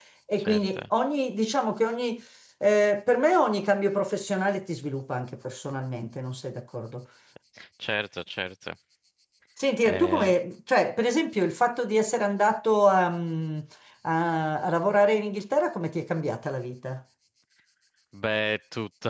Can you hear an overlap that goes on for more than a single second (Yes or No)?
No